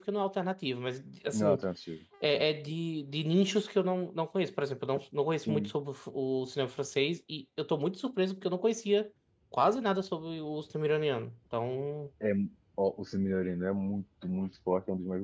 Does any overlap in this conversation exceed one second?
No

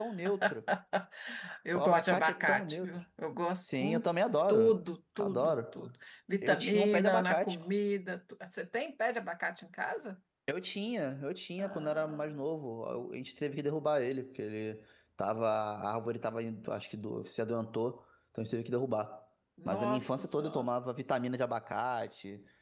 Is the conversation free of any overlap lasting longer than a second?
No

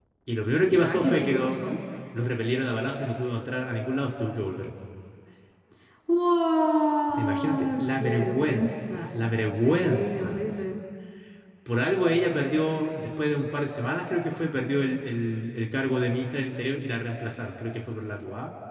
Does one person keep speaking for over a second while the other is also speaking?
Yes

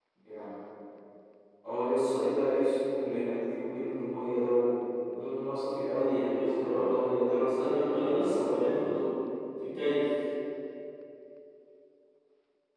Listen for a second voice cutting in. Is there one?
Yes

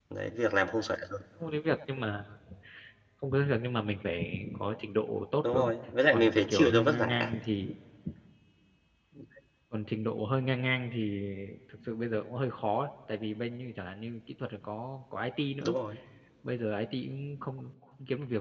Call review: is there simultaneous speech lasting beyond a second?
Yes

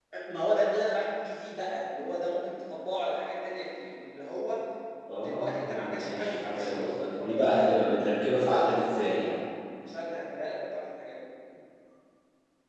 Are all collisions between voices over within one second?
No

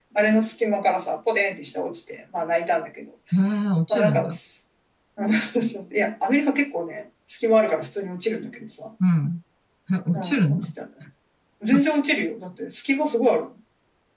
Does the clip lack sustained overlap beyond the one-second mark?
Yes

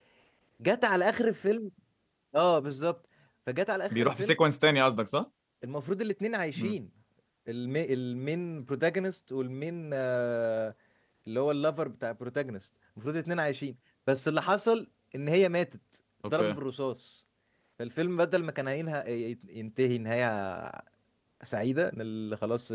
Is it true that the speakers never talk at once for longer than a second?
Yes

